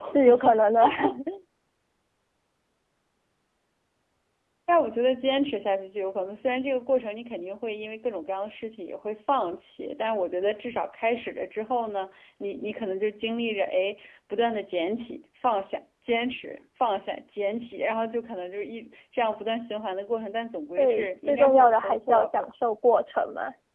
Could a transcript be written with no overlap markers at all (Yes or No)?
No